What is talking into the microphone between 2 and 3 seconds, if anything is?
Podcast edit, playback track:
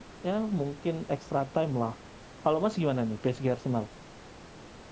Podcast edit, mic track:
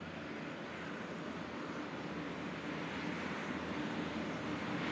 neither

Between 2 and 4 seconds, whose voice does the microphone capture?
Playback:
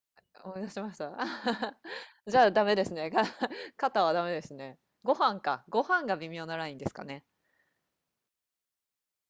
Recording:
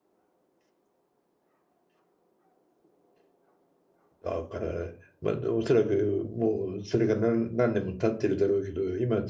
neither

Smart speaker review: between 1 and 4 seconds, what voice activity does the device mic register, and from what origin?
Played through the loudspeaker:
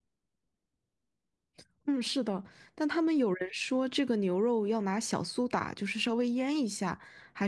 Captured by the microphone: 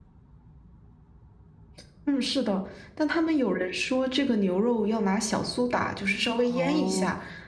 echo only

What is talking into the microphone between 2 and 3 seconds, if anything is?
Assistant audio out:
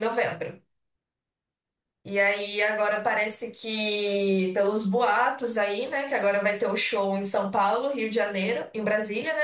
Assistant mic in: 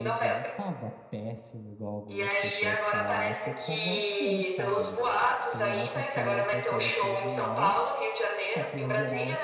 both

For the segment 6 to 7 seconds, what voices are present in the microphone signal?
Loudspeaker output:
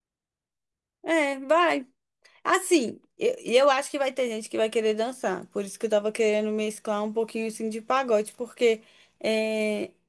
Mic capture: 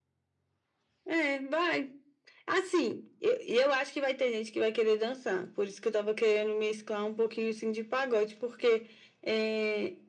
echo only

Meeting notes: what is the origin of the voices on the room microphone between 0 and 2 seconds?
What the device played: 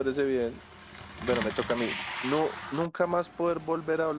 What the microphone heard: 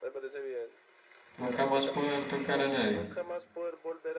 both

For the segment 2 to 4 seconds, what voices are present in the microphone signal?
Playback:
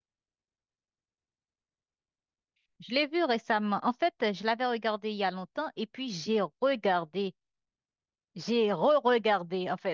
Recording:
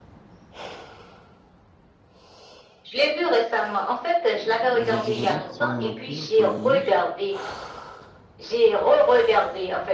echo only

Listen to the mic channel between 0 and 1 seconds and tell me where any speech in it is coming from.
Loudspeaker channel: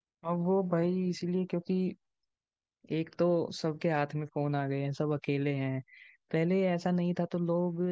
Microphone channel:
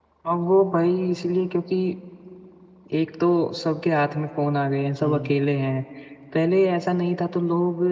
echo only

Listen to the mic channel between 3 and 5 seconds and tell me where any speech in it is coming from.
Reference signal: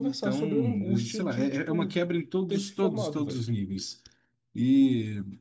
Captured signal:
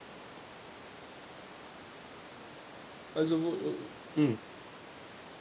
user only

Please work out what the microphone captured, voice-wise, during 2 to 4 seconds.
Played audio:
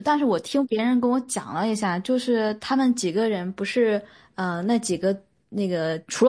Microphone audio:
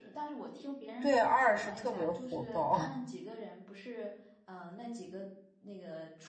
both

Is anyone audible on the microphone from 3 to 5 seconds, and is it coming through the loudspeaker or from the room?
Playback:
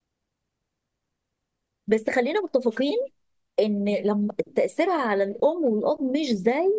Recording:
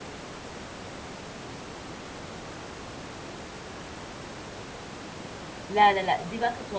neither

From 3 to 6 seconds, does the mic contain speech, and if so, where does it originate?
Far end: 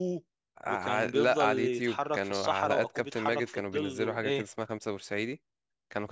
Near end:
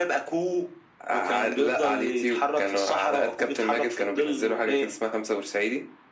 echo only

